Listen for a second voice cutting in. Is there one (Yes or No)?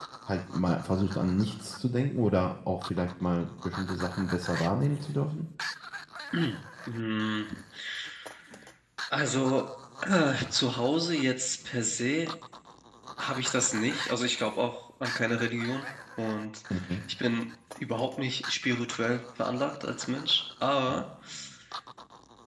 No